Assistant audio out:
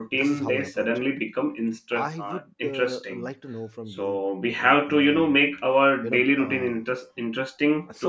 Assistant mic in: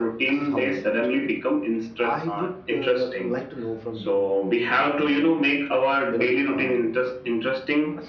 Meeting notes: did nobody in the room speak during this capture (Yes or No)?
Yes